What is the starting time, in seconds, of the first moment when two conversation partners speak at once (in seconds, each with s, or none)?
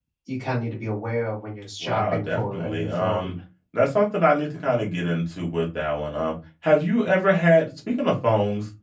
1.8 s